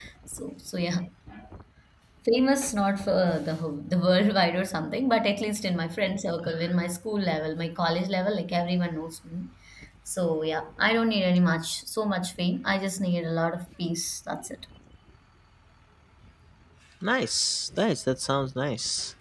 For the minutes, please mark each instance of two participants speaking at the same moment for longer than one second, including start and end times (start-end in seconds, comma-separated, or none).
none